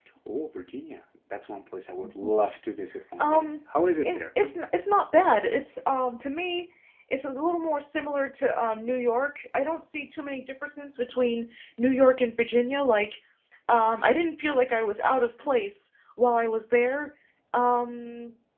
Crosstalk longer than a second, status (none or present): none